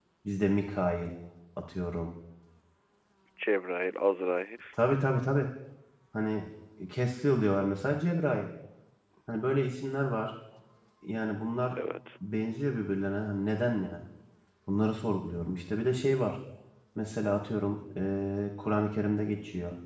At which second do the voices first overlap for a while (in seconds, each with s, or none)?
none